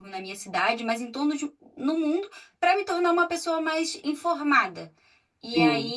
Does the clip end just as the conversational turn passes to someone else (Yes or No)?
No